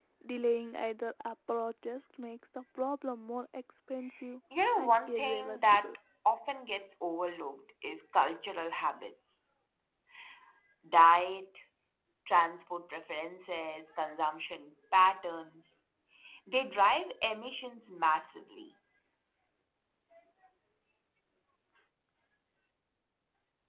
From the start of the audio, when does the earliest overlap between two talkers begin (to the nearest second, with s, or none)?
5 s